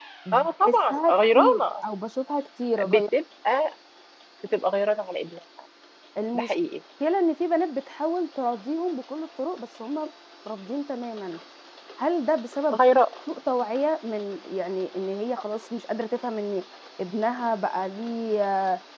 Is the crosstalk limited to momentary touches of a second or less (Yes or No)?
No